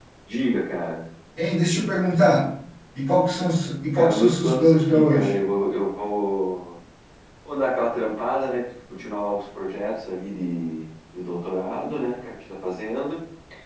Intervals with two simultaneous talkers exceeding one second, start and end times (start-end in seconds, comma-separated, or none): 3.9-5.3